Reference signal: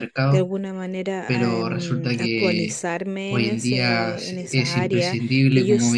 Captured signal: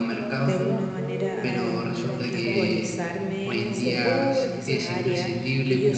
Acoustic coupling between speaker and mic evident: Yes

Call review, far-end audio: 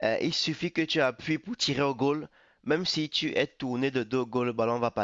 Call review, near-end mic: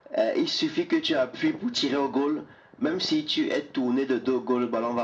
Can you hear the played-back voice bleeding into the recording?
Yes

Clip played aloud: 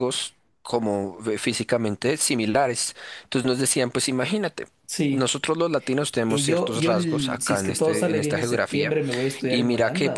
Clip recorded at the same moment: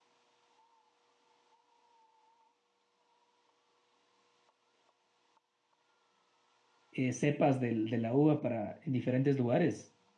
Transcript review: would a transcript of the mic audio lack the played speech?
Yes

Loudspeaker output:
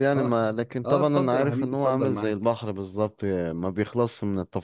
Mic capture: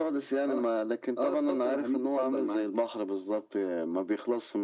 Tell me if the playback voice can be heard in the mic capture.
Yes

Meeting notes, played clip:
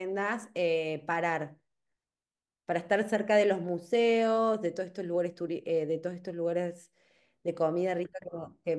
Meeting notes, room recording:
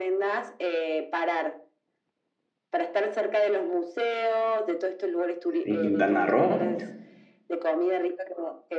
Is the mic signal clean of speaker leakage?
No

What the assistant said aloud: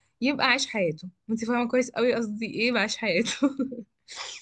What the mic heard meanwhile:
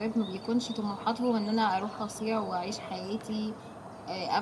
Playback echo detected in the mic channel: No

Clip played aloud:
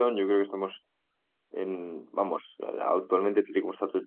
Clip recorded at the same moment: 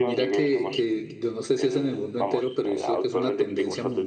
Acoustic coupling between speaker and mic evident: Yes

